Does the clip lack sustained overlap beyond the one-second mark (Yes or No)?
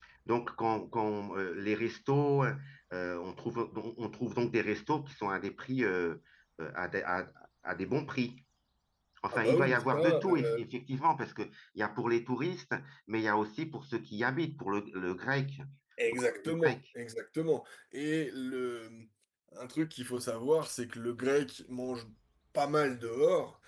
No